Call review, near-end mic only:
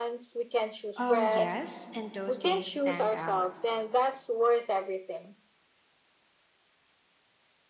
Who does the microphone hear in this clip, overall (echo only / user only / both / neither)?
both